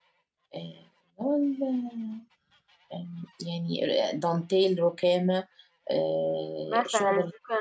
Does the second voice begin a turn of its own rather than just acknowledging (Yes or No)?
Yes